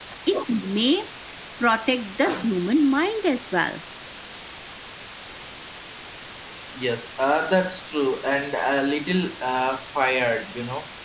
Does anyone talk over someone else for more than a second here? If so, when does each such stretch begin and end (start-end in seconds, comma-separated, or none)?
none